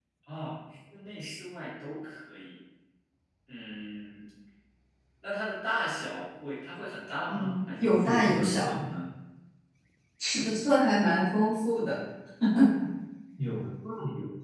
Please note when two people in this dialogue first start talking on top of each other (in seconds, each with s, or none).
7.3 s